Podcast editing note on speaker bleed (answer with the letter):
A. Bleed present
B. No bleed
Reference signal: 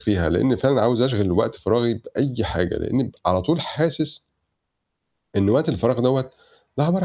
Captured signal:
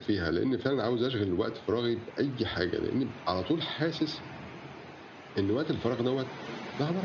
A